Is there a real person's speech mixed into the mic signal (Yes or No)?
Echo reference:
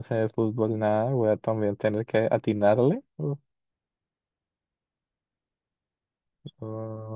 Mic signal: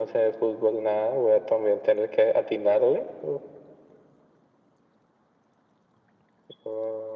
No